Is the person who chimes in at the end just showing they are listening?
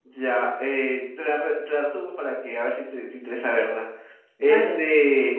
Yes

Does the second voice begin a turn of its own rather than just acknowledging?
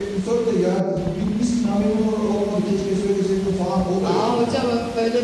Yes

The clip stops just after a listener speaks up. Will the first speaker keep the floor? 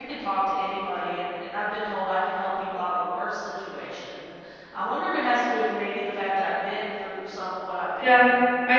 No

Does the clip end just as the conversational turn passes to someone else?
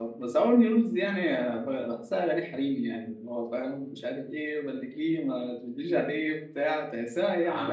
Yes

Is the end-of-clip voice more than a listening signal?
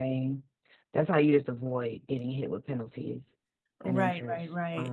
Yes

